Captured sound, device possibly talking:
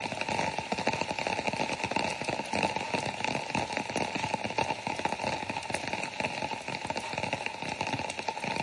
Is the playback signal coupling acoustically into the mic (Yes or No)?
No